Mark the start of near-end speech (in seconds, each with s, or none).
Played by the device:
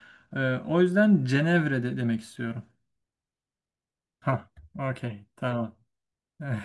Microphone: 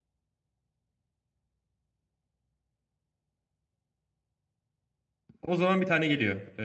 5.4 s